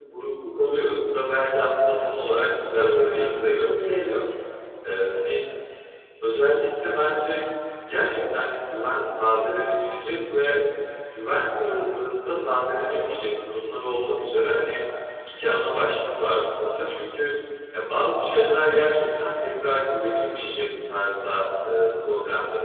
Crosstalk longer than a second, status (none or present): present